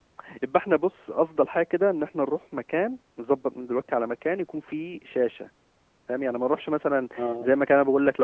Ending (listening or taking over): listening